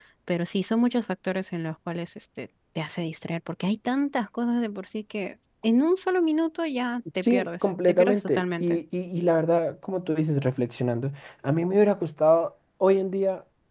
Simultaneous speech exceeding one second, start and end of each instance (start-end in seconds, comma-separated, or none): 7.2-8.8